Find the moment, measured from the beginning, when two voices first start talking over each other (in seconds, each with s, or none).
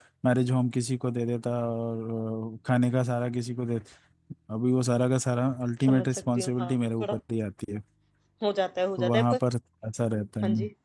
5.8 s